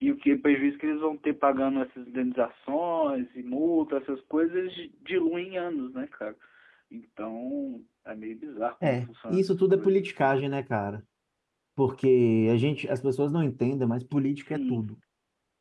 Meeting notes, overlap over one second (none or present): present